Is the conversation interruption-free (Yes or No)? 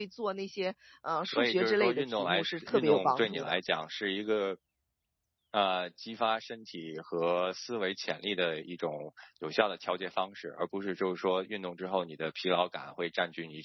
No